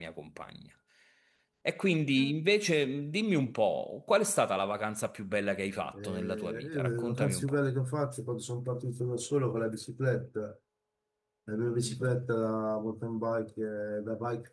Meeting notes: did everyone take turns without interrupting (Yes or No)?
No